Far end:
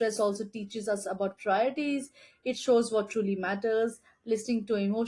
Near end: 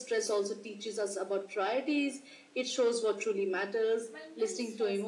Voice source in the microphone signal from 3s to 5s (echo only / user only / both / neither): both